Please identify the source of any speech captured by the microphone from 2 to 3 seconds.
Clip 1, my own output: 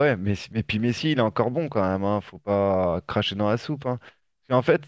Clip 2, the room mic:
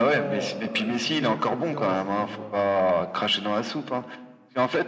both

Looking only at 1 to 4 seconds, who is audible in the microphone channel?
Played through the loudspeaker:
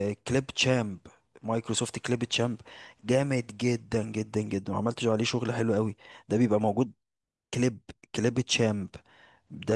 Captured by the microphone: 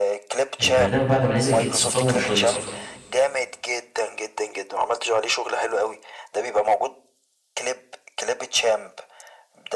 both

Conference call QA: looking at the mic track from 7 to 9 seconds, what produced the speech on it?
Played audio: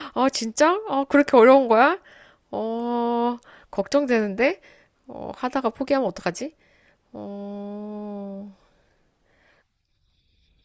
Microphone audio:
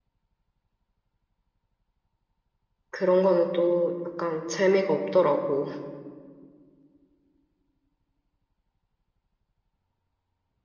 neither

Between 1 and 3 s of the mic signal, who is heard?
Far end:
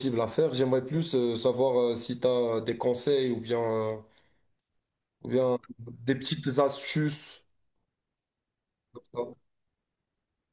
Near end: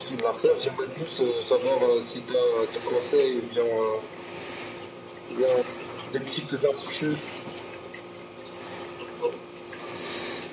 echo only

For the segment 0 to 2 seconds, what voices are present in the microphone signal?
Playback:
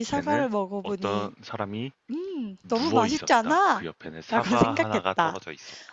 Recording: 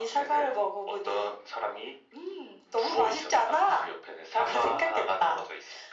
echo only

